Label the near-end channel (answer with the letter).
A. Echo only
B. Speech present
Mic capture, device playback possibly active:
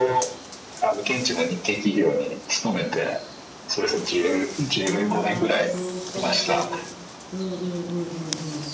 B